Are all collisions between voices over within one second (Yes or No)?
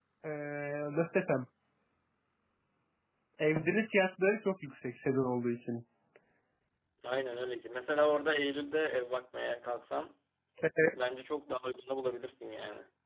Yes